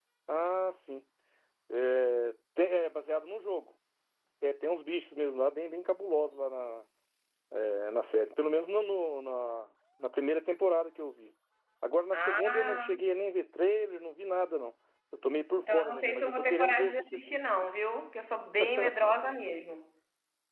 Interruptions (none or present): present